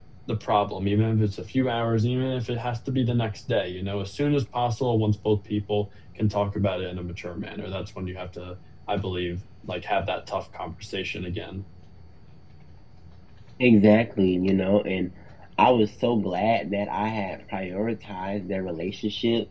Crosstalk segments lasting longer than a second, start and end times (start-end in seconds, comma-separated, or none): none